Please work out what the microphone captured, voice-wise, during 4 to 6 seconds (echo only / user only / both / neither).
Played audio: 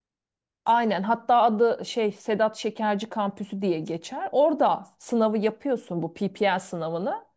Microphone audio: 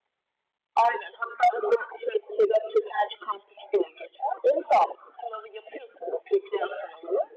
echo only